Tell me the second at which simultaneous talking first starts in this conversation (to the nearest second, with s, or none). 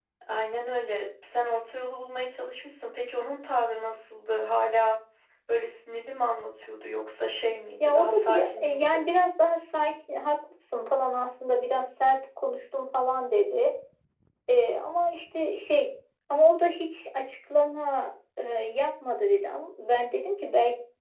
8 s